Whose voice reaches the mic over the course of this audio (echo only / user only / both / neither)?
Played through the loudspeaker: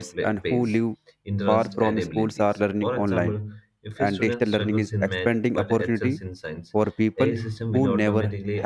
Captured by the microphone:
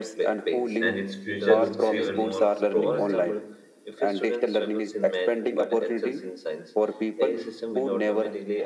both